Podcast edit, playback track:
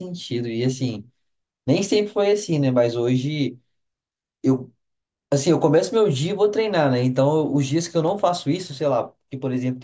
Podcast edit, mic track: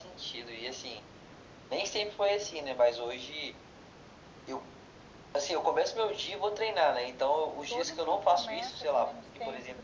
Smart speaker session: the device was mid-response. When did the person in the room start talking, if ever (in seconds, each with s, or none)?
7.7 s